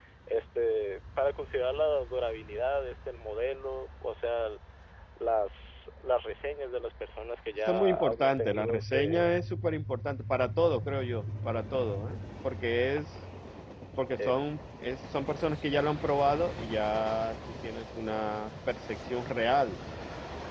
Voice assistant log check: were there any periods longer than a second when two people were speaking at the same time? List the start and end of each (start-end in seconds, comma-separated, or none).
7.5-9.2